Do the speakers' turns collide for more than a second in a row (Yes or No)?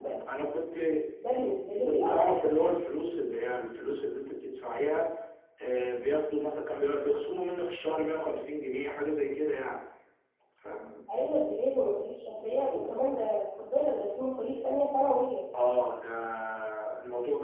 No